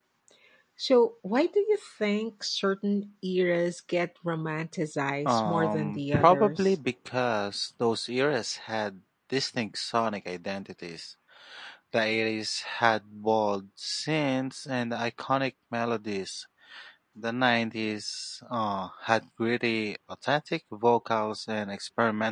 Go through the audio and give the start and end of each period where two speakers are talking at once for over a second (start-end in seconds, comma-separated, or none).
5.2-6.7